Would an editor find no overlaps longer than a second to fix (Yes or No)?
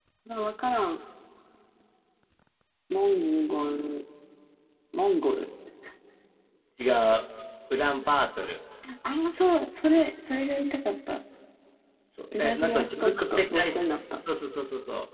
No